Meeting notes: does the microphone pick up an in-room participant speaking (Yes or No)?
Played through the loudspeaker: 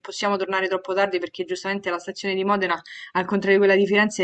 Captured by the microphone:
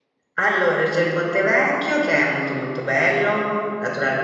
Yes